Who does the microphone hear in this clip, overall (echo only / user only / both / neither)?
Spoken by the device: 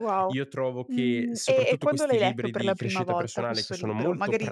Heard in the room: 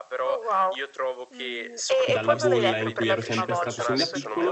both